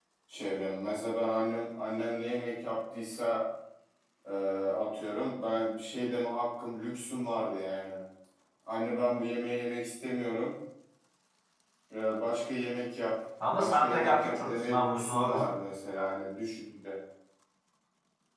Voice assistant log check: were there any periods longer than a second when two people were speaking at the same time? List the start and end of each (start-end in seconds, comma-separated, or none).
13.5-15.3